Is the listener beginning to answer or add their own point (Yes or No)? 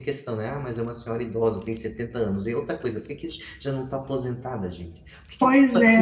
Yes